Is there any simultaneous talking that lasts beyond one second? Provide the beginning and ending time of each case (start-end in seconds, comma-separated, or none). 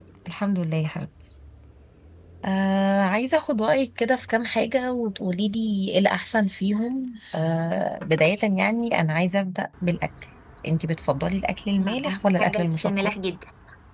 11.8-13.1